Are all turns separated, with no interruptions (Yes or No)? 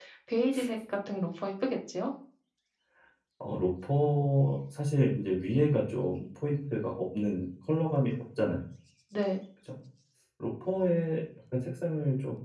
Yes